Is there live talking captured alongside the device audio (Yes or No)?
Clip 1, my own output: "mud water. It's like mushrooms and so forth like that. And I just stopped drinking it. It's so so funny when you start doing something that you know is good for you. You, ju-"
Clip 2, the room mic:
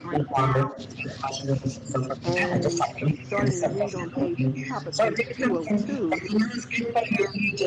Yes